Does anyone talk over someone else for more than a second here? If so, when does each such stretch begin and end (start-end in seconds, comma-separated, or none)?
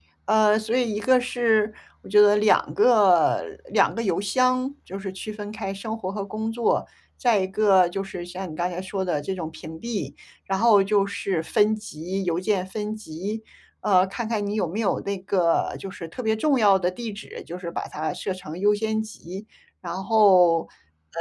none